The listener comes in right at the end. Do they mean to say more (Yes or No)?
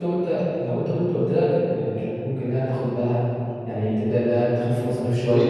Yes